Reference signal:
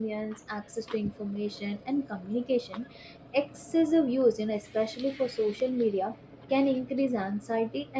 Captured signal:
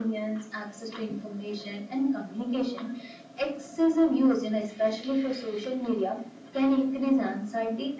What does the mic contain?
echo only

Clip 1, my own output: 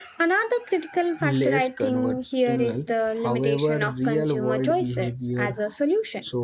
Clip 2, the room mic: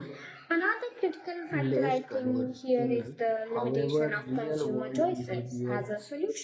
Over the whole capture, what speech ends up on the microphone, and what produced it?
echo only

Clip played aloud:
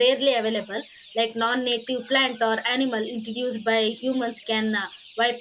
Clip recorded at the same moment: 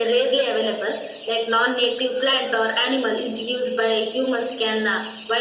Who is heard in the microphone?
echo only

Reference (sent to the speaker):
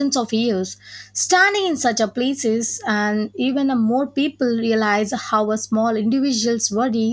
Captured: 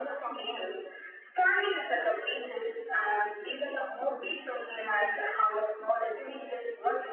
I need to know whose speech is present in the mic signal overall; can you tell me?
echo only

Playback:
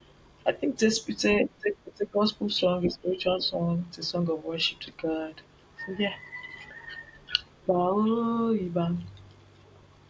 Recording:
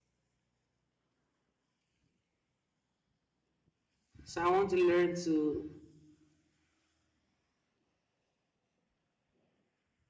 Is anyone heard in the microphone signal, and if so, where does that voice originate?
user only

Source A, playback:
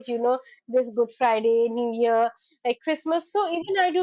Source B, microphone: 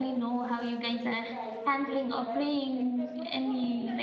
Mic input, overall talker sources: both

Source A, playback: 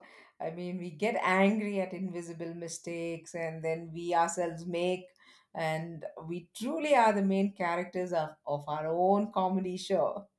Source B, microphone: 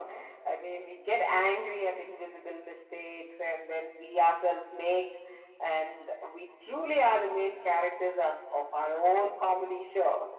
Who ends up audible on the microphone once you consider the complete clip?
echo only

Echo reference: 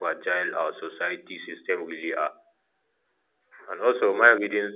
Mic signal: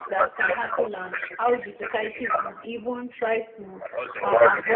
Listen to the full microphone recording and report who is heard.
both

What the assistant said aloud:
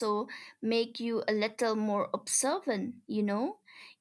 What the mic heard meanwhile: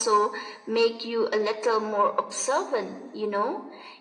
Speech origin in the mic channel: echo only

